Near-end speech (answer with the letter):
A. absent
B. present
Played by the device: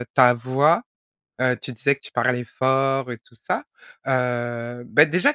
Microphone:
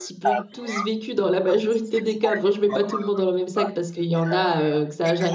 B